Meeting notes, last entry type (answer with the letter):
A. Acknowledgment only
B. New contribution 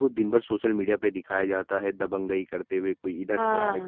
B